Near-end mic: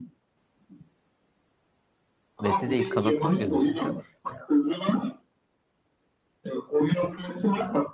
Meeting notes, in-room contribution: present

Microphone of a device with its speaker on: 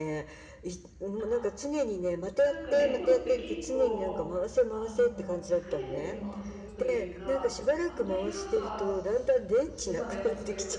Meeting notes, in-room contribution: present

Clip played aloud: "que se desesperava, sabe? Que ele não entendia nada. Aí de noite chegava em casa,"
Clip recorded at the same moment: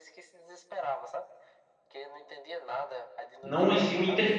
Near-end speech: present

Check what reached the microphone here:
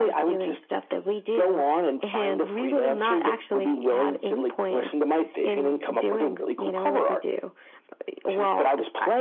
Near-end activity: none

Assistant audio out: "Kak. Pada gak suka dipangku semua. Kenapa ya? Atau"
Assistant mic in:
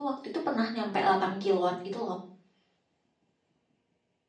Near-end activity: present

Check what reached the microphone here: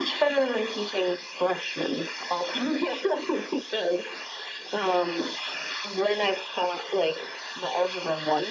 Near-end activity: none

